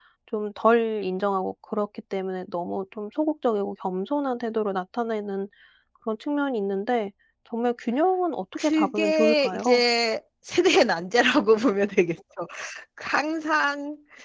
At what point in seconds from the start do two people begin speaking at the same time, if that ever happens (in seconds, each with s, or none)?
8.6 s